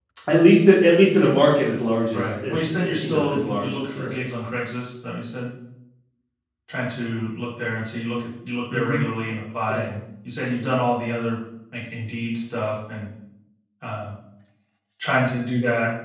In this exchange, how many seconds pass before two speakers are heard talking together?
2 s

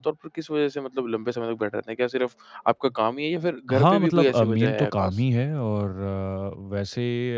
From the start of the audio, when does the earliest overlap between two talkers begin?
4 s

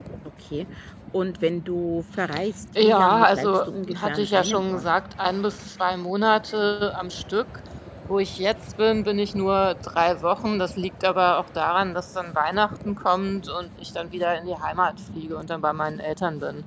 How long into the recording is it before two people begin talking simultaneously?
3 s

